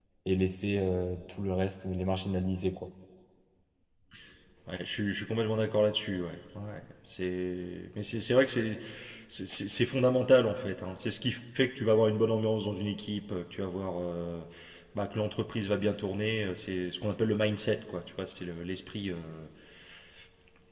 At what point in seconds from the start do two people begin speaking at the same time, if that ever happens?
none

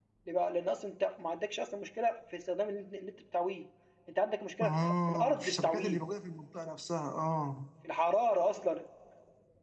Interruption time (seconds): 5 s

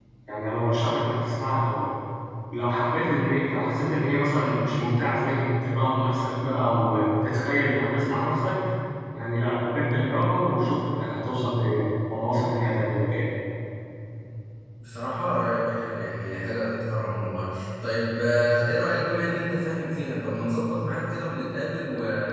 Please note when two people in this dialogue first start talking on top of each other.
none

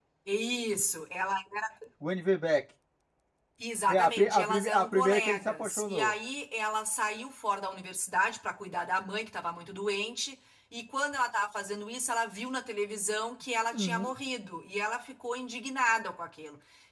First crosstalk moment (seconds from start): 4 s

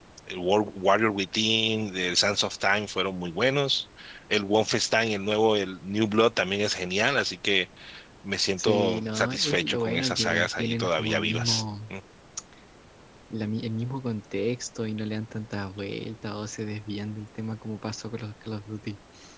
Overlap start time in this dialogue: 9 s

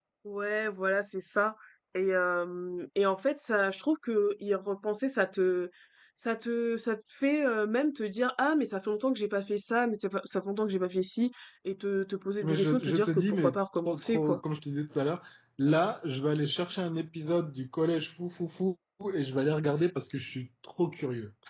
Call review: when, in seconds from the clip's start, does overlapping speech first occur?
12 s

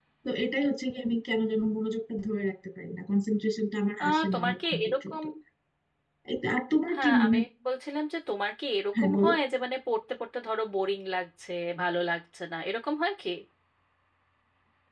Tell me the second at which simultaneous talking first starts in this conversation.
4 s

